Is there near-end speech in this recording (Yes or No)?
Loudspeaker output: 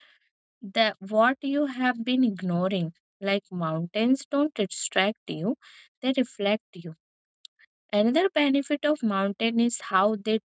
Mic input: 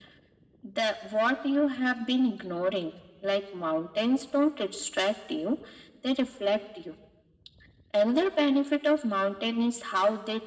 No